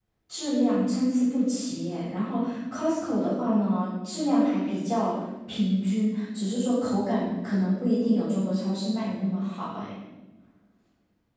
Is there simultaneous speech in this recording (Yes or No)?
No